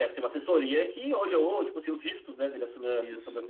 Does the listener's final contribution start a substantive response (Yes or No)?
Yes